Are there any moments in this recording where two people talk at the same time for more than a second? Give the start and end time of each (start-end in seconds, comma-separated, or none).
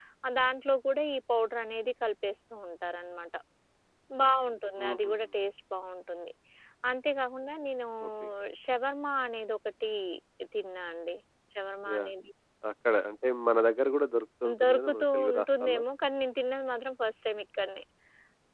14.6-15.8